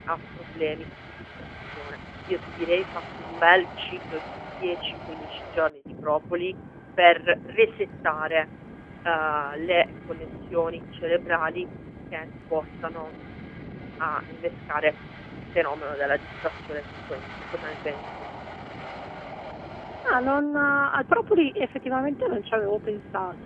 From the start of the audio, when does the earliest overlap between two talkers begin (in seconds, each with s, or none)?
none